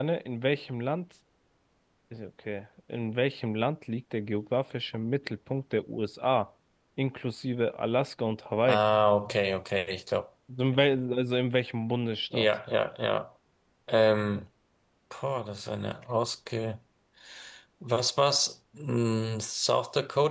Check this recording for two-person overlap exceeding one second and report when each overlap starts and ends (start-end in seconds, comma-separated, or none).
none